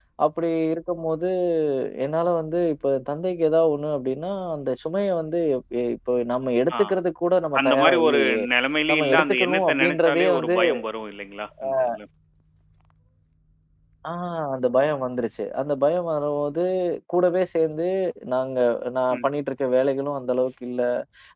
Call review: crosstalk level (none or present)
present